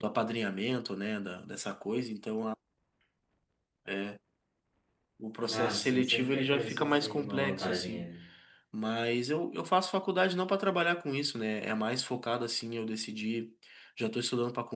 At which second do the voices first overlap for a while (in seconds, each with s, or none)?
5.5 s